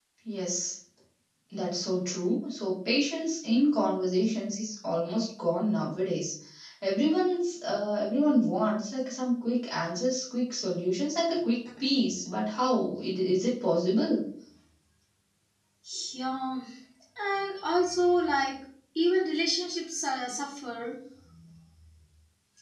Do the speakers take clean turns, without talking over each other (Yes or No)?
Yes